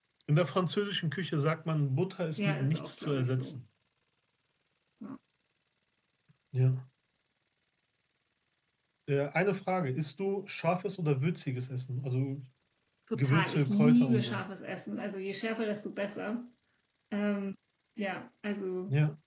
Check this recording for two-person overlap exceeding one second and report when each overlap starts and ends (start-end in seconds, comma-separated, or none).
2.4-3.6, 13.1-14.4